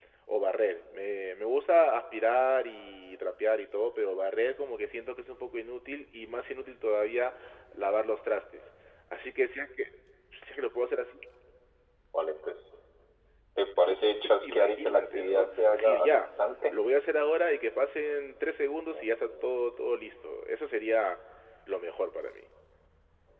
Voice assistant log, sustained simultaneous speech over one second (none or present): present